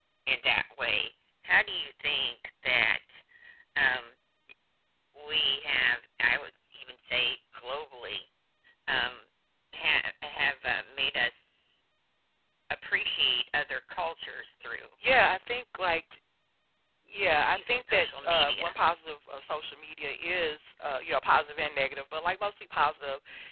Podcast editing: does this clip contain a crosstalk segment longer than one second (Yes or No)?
Yes